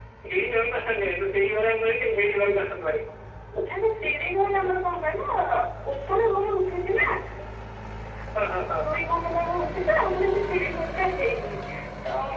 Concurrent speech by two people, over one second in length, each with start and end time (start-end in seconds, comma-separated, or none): none